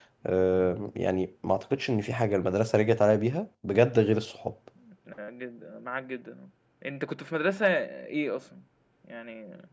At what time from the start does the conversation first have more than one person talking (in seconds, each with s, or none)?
none